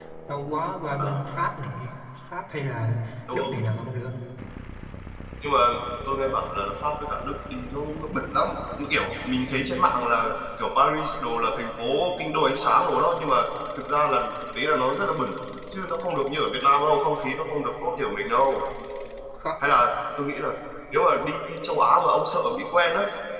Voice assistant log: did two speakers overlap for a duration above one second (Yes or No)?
No